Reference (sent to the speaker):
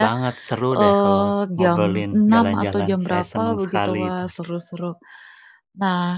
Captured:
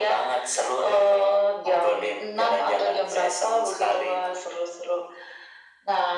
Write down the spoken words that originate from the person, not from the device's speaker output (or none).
none